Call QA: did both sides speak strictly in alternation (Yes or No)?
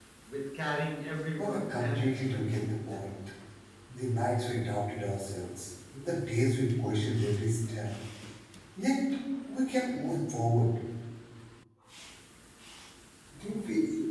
No